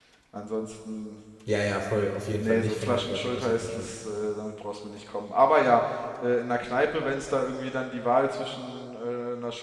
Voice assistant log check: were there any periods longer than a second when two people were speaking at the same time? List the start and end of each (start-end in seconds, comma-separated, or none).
2.4-3.9